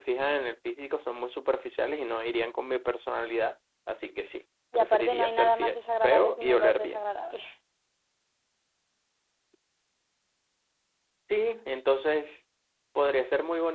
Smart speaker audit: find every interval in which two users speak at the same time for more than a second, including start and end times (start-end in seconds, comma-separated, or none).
4.7-7.0